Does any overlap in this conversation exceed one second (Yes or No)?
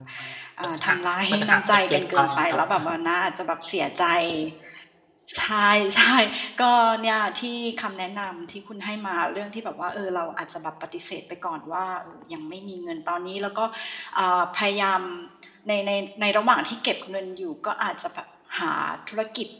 Yes